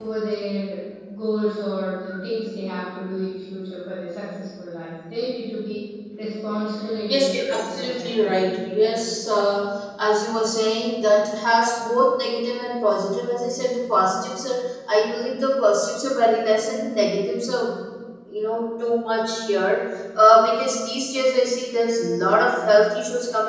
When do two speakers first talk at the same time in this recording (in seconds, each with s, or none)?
7.1 s